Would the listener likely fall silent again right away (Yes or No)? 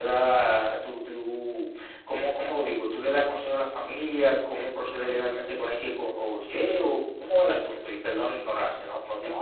No